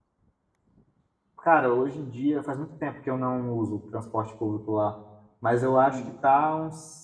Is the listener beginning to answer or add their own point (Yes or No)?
No